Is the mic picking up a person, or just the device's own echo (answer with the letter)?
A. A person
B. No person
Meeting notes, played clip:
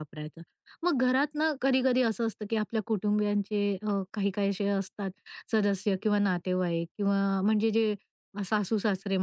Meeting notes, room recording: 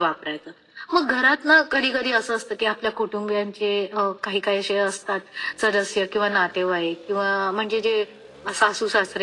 B